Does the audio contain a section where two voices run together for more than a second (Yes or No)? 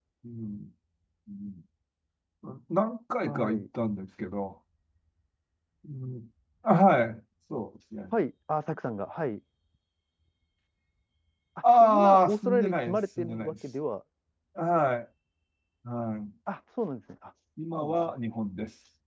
Yes